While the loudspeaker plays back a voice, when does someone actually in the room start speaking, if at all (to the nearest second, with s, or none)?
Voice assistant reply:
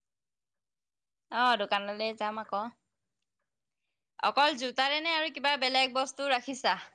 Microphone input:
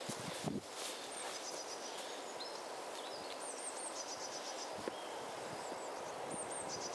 none